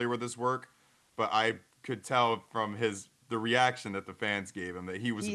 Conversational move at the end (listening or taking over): taking over